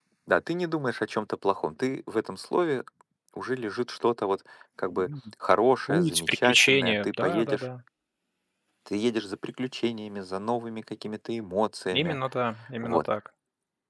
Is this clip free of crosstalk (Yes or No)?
No